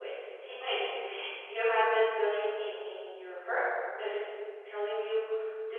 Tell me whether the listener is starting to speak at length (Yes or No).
No